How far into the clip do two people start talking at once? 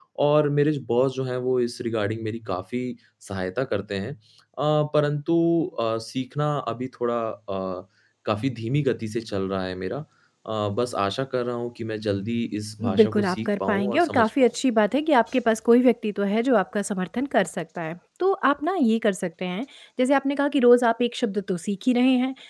12.8 s

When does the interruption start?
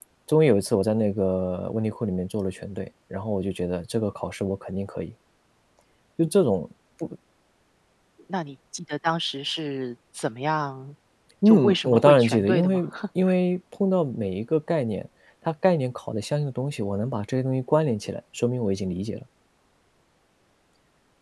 11.4 s

